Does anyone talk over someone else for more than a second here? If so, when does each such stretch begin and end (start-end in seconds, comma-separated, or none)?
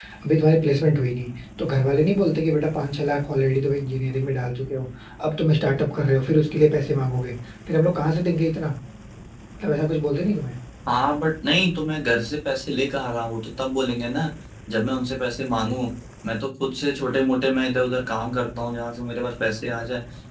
none